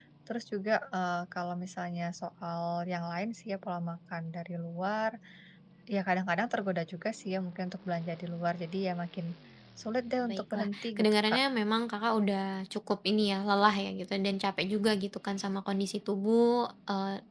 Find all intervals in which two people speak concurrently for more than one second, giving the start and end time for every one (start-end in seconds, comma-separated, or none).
10.2-11.4